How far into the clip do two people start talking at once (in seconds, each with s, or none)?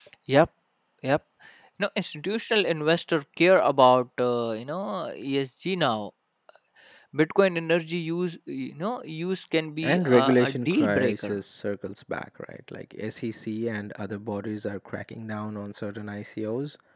9.8 s